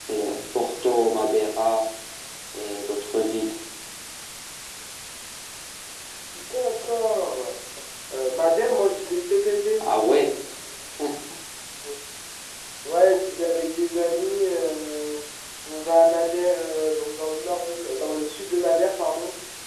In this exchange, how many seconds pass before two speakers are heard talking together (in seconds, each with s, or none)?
none